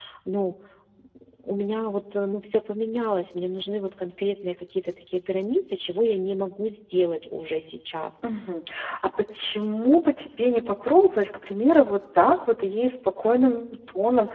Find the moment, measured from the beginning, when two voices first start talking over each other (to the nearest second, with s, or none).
none